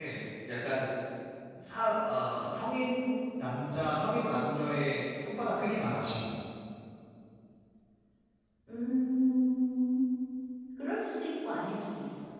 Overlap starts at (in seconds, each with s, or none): none